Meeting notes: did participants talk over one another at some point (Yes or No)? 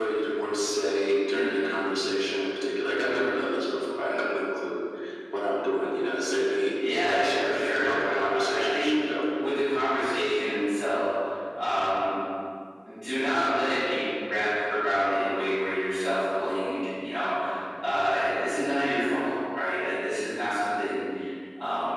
Yes